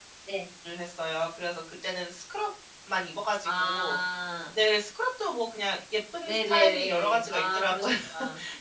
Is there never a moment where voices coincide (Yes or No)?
No